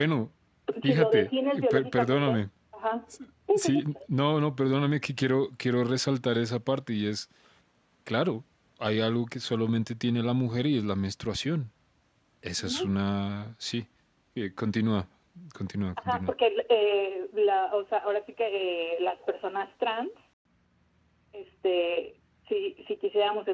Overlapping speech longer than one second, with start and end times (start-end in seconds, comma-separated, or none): 0.8-2.4